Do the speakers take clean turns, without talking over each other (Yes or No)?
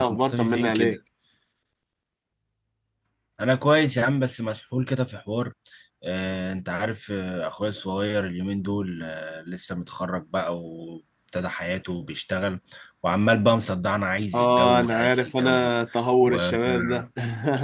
No